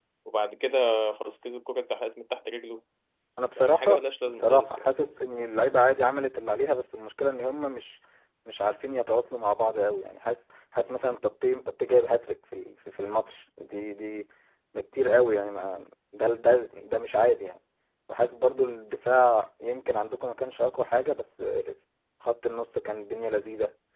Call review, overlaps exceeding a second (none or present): present